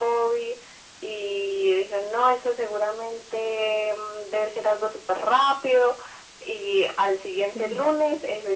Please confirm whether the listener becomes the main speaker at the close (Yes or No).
No